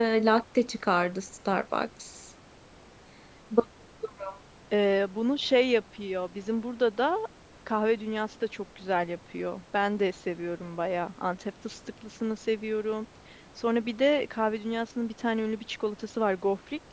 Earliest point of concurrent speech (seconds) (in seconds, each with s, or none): none